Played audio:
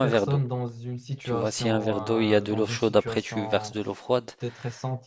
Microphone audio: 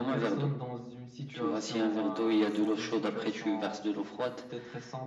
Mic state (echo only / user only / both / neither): echo only